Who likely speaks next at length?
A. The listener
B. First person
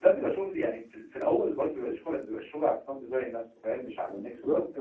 A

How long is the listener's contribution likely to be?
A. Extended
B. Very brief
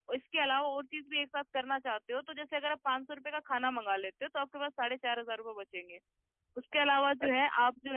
B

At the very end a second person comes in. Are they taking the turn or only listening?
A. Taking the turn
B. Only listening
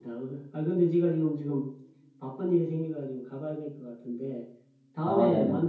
B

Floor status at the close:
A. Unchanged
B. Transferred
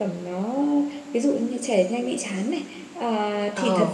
A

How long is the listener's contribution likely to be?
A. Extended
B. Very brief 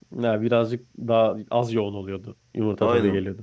A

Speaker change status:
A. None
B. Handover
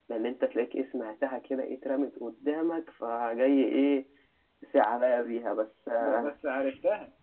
B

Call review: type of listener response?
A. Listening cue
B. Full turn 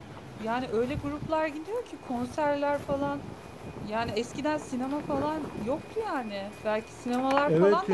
B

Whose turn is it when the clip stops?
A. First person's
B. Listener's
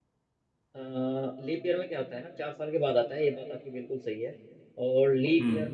A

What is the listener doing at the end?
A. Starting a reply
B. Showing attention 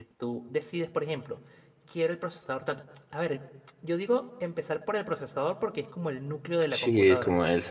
A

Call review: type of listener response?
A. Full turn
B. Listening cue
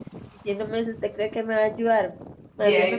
B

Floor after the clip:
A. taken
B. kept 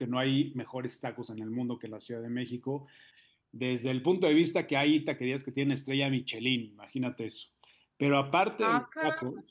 B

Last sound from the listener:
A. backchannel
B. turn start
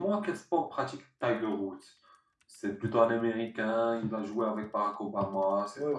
B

